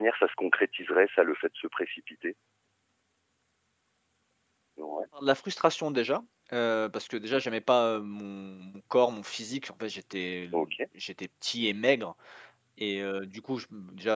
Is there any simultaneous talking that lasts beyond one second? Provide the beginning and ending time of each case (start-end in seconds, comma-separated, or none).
none